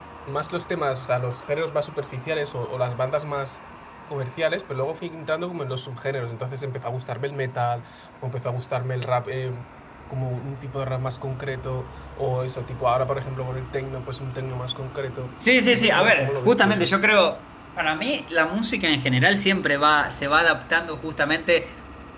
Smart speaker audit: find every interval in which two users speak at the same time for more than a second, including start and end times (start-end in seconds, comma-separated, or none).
15.7-16.9